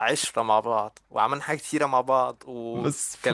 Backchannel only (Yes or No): No